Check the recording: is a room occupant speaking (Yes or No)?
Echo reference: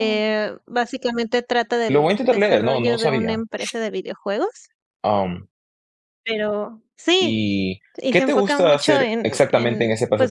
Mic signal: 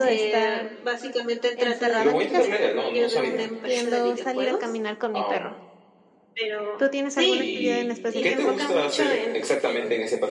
Yes